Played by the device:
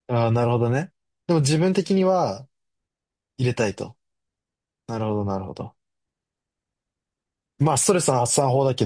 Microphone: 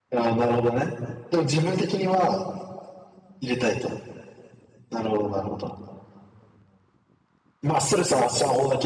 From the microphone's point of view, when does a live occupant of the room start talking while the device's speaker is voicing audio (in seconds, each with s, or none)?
none